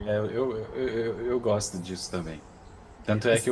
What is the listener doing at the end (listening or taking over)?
listening